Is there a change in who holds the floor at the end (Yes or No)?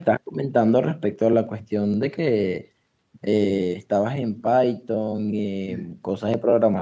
No